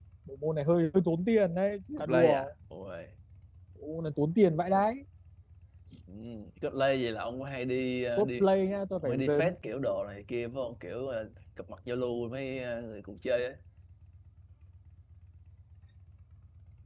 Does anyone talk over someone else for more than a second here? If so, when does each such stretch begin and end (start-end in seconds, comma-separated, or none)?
none